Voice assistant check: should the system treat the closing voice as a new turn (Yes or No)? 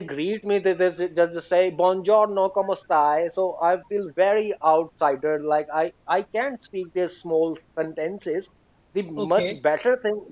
No